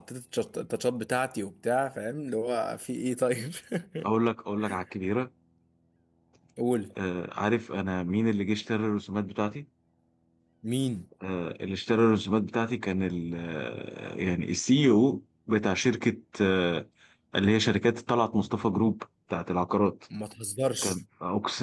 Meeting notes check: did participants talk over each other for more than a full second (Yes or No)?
No